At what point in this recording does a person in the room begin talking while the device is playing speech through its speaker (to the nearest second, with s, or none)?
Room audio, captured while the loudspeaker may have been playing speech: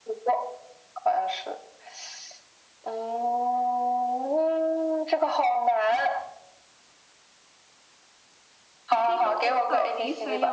9 s